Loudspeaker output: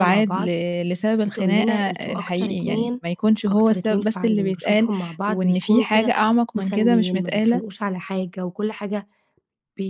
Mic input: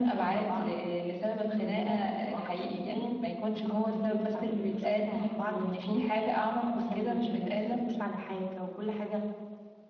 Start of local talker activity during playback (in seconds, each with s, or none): none